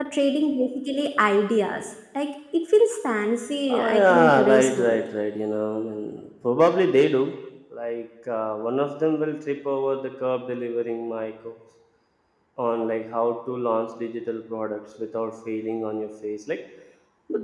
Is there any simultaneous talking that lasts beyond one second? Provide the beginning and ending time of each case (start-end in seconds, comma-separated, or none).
3.7-5.0